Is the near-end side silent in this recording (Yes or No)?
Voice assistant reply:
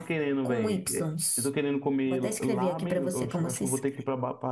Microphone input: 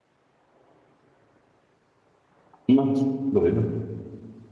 No